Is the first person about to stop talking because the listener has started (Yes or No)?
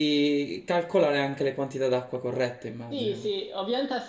Yes